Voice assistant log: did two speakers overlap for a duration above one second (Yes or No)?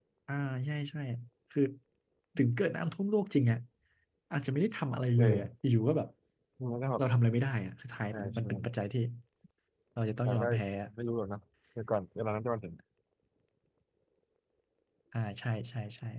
No